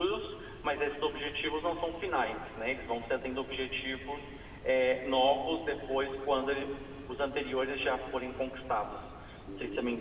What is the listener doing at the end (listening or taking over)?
taking over